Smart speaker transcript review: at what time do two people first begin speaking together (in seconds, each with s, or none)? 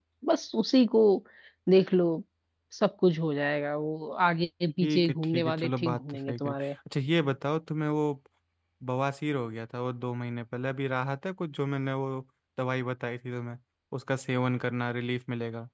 4.8 s